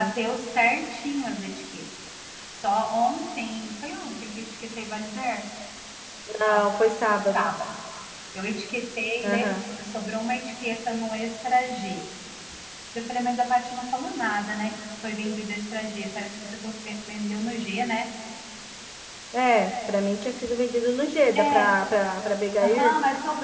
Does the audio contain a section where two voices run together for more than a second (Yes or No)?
No